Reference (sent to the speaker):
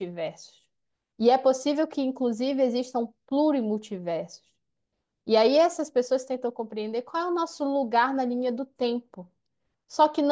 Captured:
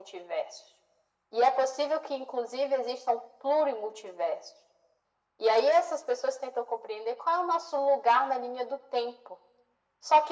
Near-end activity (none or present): none